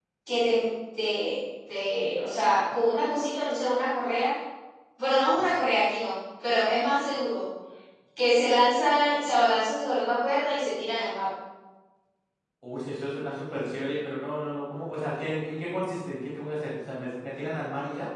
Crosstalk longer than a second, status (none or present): none